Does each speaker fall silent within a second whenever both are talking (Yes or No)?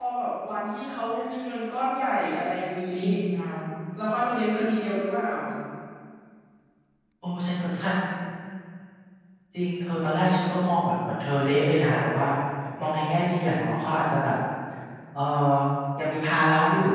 Yes